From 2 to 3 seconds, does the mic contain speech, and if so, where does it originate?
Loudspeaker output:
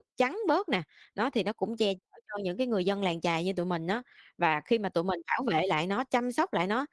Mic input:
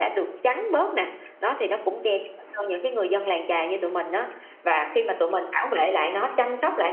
echo only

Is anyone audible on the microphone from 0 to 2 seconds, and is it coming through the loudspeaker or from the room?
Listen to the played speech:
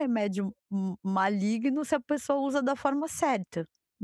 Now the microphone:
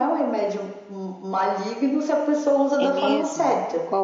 echo only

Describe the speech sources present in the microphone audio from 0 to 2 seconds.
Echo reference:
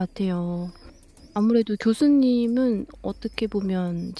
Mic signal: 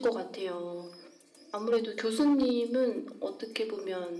echo only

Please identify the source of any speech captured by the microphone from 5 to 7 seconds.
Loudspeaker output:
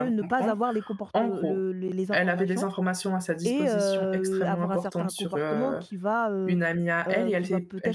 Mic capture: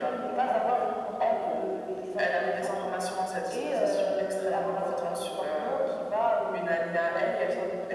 echo only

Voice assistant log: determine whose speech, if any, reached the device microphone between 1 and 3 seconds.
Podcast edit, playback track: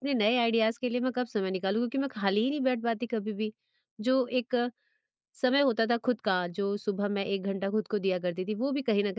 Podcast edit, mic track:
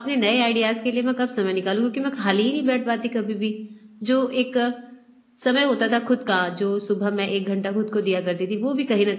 echo only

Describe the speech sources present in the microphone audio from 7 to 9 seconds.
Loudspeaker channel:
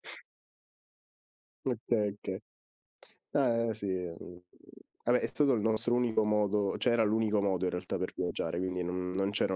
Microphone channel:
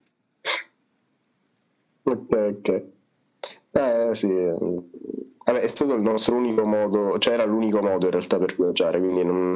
echo only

